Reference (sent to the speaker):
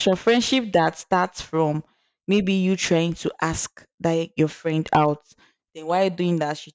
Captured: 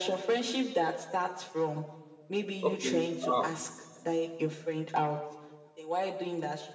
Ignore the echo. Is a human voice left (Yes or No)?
Yes